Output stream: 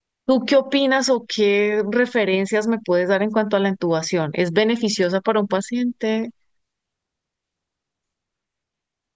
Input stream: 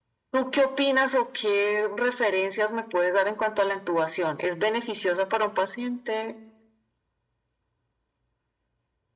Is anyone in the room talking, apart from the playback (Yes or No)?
No